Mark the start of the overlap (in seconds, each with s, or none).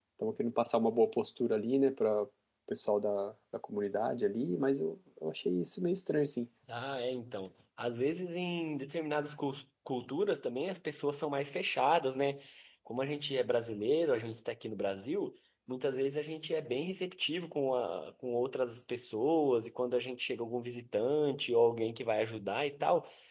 none